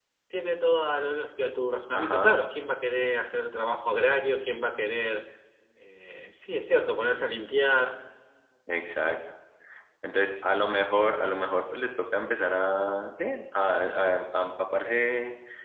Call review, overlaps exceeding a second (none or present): none